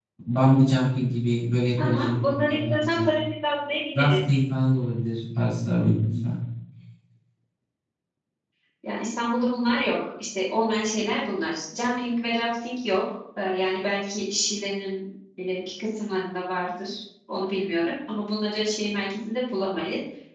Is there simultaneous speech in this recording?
Yes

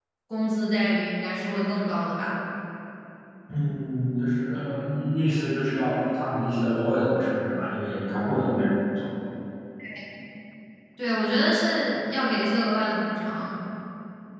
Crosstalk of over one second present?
No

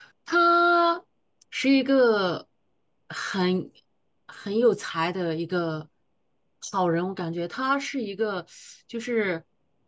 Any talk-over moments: No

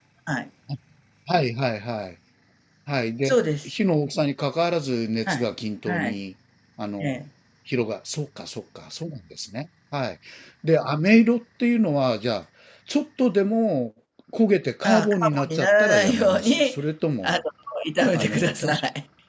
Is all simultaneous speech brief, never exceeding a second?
No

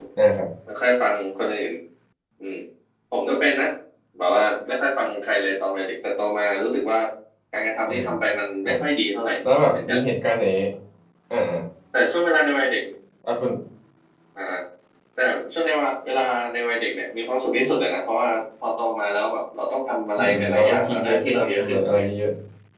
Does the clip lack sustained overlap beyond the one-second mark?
No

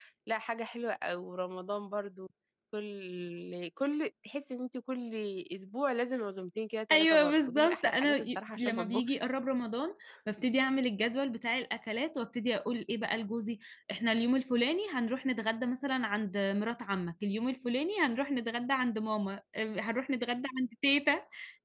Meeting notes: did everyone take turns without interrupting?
No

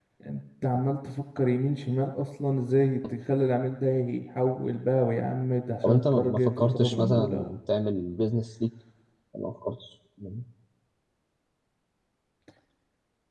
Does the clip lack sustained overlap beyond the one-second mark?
No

